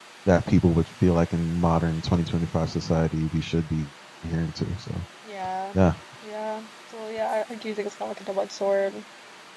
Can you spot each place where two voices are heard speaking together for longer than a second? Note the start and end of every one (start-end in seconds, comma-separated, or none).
none